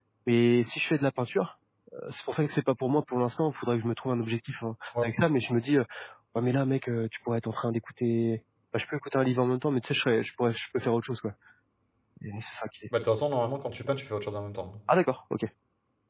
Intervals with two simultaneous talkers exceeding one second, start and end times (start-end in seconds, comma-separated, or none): none